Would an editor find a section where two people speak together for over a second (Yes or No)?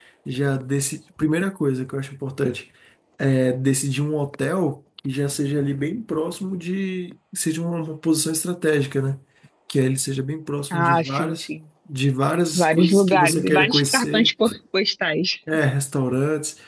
Yes